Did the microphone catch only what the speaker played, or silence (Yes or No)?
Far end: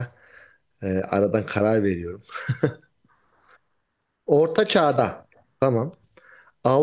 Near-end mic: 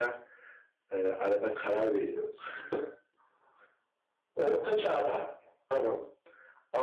Yes